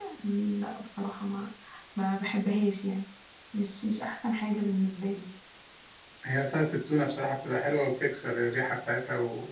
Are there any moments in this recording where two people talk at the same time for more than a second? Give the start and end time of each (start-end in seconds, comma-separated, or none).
none